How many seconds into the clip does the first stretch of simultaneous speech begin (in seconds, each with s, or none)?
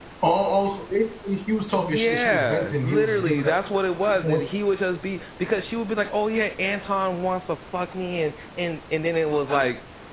1.8 s